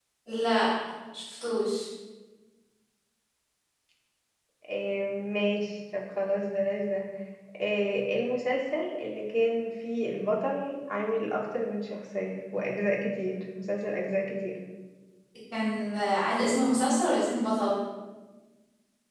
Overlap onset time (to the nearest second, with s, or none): none